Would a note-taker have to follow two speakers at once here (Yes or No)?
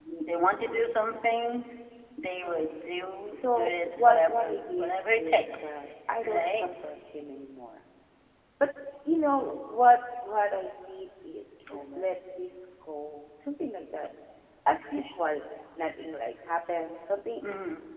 Yes